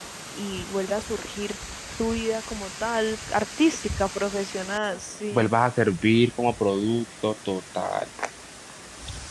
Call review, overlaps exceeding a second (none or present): none